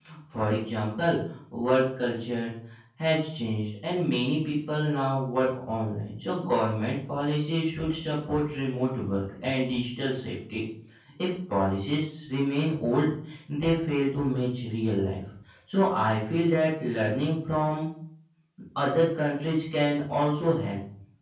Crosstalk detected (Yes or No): No